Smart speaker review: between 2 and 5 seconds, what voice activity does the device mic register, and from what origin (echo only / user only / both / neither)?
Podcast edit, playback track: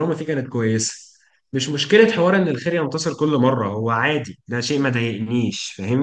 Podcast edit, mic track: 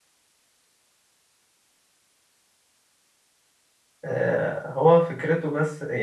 user only